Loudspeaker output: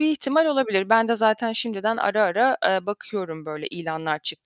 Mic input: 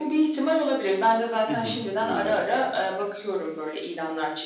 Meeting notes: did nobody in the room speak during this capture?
No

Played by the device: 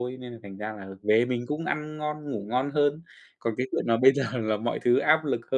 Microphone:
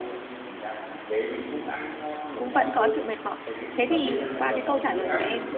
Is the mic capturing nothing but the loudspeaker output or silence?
No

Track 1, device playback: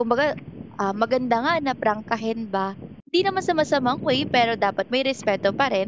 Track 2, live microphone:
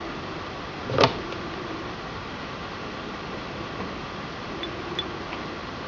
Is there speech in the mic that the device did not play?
No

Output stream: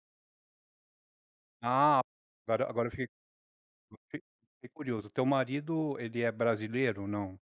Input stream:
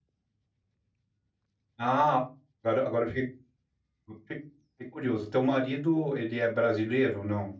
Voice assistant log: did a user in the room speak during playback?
No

